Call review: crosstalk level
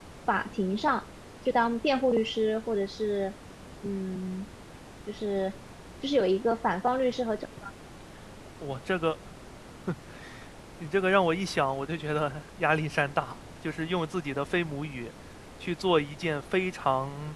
none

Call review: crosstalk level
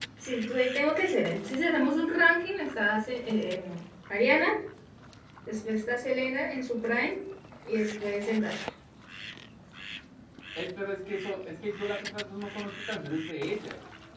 none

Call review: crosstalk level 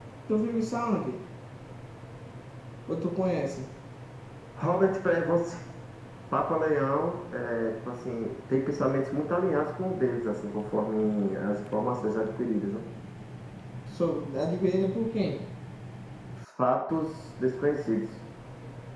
none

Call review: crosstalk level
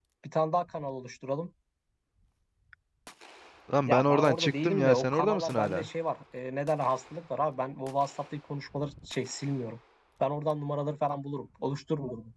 present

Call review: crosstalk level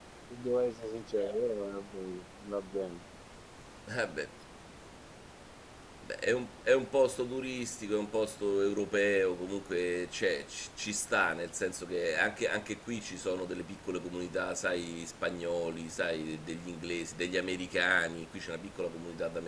none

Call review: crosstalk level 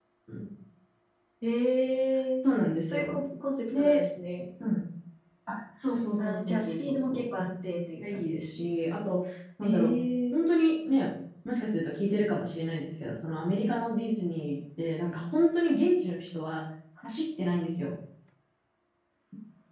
present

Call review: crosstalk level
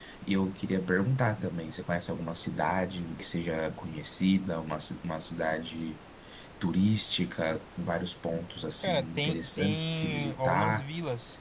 present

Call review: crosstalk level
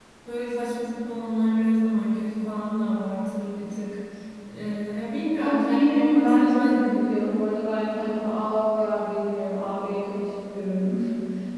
present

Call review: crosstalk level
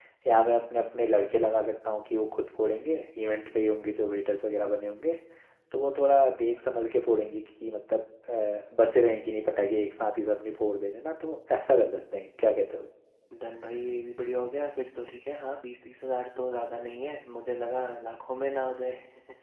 none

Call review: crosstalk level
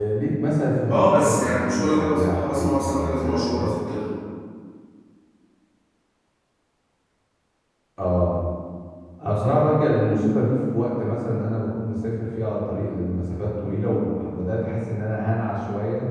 present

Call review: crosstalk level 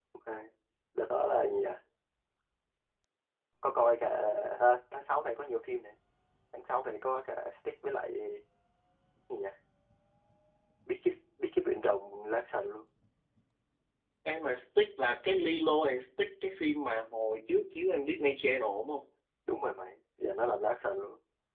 none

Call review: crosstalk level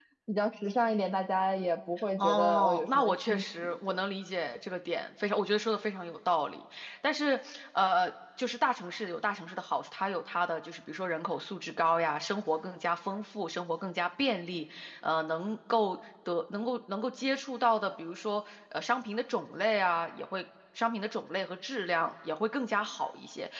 present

